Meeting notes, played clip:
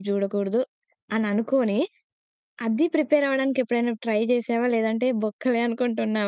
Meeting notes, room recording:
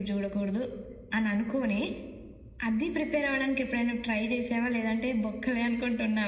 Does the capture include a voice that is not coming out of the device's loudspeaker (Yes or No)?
No